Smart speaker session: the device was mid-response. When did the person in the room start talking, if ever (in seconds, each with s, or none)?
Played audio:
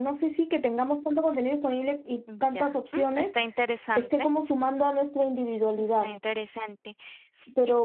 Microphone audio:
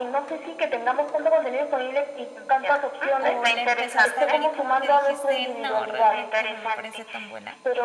3.2 s